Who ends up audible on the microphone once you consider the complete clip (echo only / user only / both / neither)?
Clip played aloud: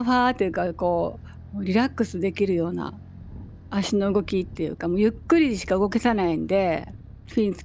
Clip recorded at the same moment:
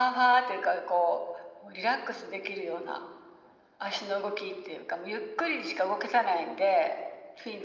echo only